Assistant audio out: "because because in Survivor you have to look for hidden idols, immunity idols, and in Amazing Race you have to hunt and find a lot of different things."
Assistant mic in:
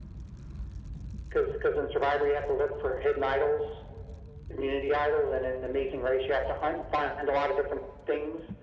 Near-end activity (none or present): none